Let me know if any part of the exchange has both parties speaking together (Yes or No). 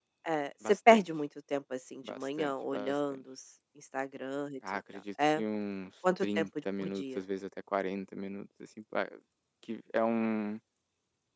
Yes